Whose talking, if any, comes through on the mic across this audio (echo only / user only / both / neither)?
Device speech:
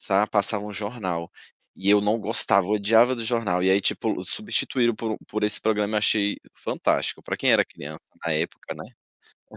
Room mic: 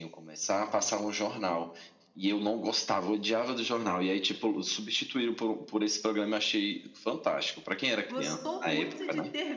both